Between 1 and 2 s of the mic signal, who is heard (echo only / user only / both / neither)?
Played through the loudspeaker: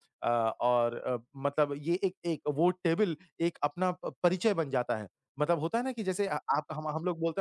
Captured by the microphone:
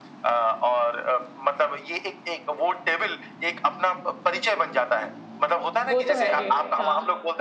echo only